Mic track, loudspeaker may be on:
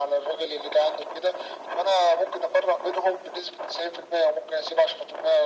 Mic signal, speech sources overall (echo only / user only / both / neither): echo only